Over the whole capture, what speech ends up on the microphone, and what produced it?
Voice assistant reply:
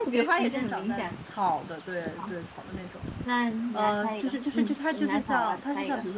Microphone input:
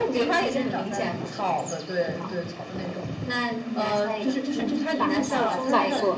both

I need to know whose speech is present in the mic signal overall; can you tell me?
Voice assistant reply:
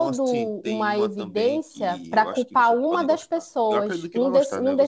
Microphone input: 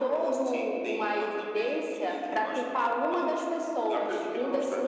echo only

